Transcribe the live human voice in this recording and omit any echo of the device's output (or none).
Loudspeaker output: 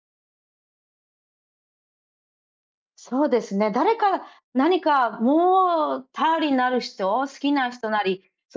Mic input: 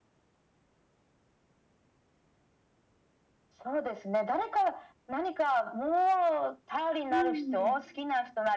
うーん。